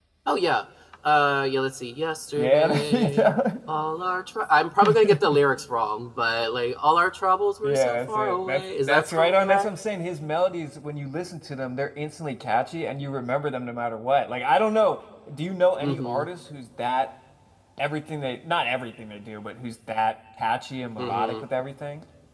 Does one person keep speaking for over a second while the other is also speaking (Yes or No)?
Yes